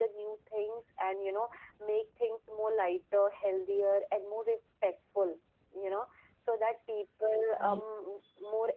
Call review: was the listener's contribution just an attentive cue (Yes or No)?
Yes